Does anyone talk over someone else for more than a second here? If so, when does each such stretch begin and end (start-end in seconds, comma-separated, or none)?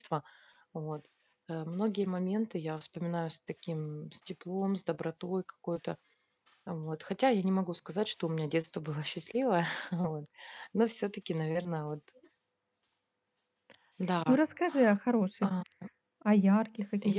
none